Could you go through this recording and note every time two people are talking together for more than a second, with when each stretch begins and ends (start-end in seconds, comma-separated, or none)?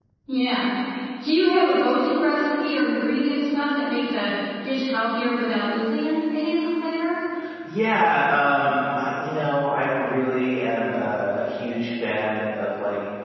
none